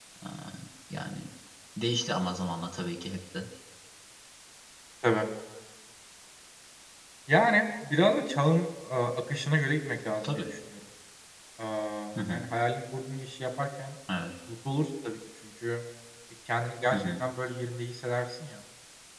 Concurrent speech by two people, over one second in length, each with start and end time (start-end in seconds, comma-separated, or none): none